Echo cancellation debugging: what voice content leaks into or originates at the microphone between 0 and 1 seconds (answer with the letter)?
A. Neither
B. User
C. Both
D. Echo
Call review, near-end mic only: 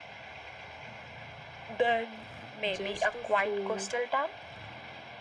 A